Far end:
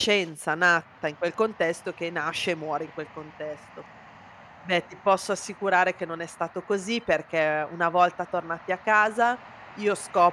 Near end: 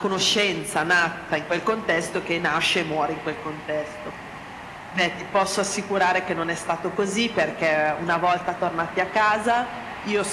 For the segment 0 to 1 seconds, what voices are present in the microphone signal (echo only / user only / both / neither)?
echo only